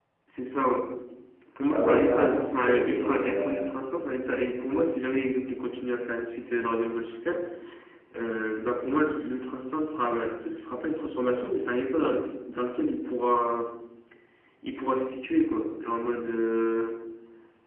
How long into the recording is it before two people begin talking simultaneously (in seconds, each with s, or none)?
1.7 s